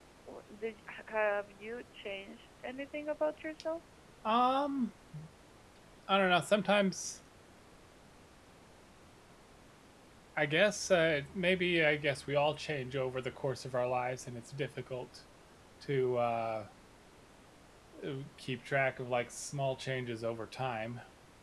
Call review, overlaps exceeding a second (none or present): none